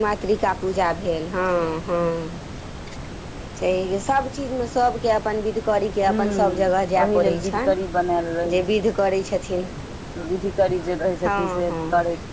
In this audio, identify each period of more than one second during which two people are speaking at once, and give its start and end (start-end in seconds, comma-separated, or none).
6.1-7.5